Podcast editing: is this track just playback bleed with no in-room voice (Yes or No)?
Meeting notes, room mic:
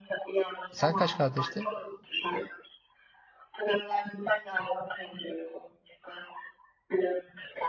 No